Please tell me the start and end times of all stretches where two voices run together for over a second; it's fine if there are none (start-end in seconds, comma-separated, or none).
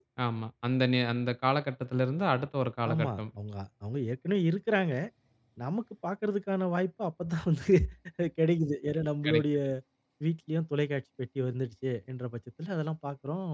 none